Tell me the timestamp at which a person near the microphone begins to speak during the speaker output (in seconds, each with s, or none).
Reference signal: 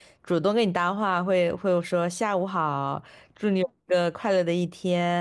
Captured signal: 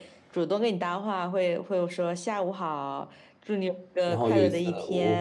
4.0 s